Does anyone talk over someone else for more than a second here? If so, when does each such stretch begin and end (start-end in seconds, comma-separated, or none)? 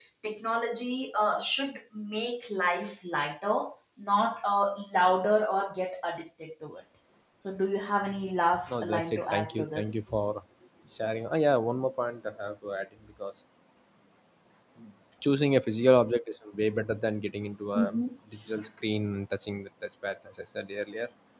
8.7-9.9